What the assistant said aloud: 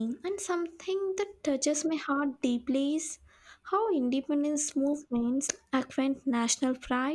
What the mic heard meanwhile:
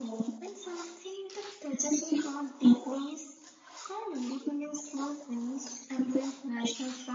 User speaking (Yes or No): No